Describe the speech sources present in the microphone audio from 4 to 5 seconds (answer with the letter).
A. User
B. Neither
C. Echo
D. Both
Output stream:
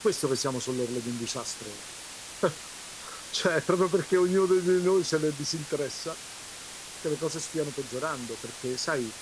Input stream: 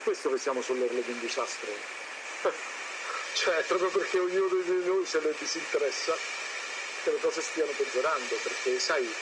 C